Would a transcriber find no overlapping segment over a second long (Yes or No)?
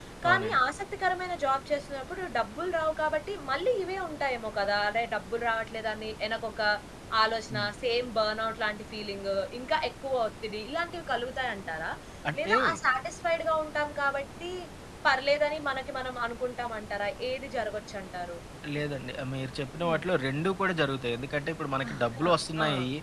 Yes